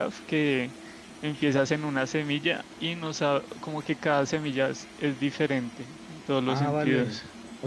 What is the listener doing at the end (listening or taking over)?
taking over